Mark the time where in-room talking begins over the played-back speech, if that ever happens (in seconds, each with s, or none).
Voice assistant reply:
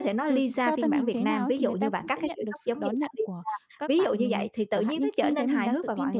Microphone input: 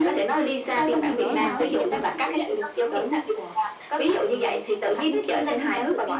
0.9 s